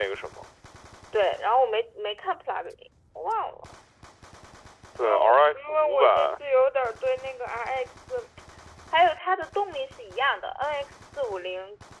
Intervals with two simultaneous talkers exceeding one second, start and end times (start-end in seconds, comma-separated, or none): 5.0-6.3